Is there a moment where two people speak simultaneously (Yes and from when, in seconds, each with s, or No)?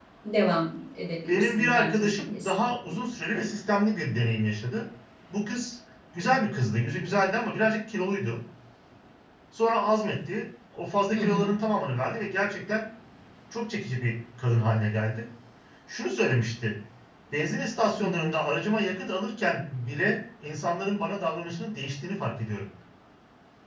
Yes, from 1.3 s